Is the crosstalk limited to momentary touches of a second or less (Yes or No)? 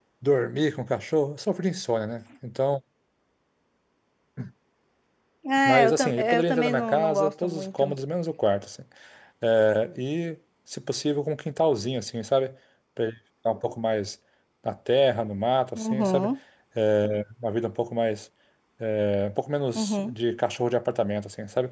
No